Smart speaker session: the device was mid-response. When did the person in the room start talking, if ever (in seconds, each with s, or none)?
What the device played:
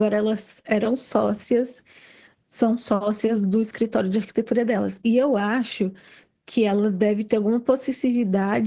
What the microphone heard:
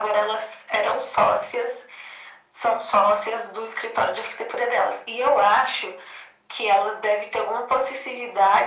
none